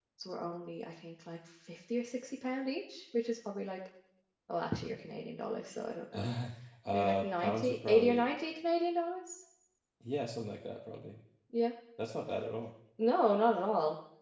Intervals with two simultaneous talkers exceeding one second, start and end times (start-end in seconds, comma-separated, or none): 6.9-8.3